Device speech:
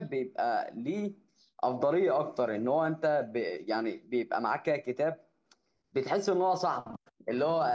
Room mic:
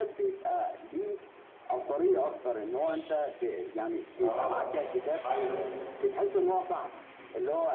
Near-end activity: present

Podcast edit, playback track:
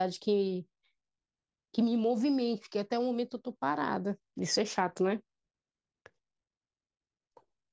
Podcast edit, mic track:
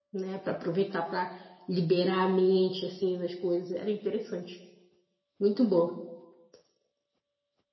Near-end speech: present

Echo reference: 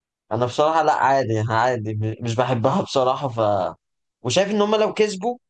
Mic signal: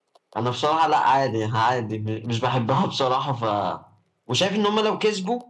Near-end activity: none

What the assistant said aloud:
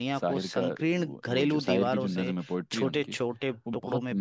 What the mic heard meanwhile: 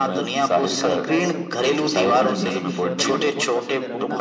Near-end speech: present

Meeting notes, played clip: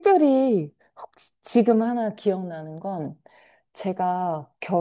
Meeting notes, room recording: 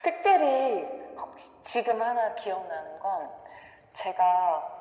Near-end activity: none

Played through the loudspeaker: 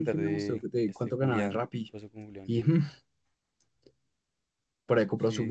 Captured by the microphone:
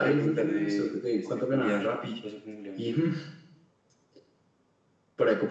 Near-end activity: none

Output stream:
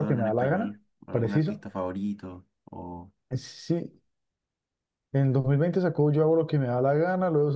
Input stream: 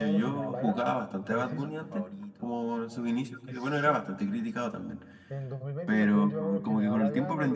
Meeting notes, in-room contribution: present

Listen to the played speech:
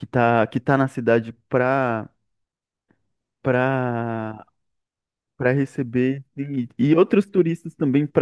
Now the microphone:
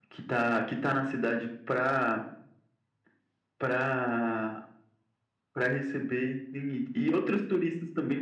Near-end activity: none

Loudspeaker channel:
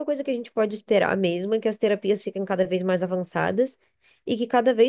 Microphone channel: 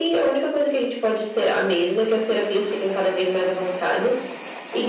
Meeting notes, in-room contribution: none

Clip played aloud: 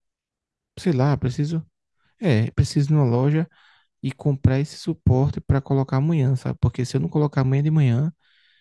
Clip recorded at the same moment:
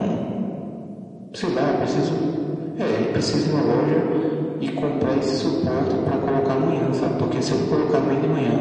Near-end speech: none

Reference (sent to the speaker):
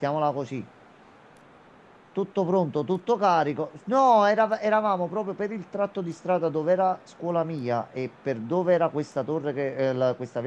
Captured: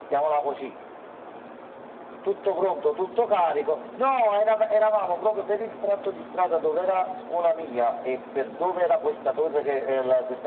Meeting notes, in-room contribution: none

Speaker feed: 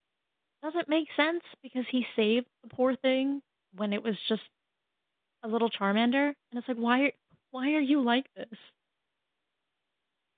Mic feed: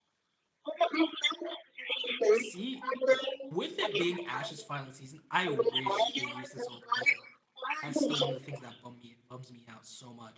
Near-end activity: present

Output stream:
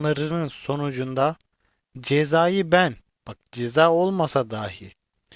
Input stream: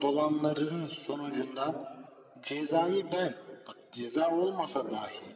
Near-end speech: none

